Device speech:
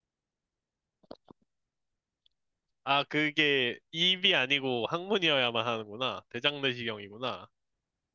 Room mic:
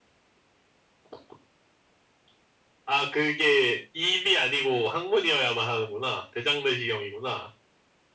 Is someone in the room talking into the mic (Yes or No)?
No